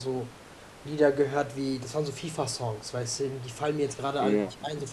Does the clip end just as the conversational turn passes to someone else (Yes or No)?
No